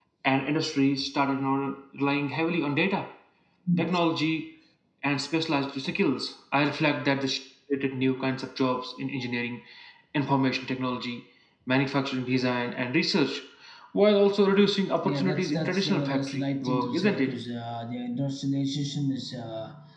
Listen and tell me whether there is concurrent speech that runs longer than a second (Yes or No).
Yes